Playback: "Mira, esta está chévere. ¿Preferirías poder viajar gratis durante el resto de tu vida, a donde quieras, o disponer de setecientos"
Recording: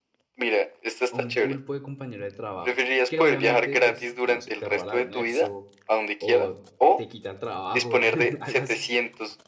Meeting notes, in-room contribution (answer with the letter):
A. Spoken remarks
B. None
A